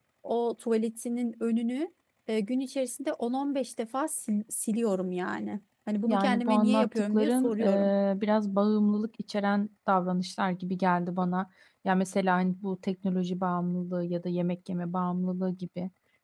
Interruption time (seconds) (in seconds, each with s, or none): 6.1 s